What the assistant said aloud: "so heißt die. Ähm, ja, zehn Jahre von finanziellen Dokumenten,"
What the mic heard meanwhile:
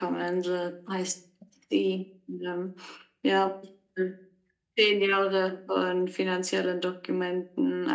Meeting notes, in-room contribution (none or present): none